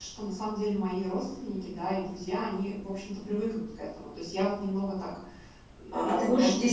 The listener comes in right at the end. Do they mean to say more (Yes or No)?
Yes